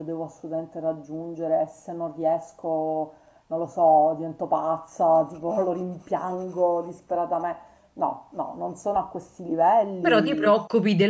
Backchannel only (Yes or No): No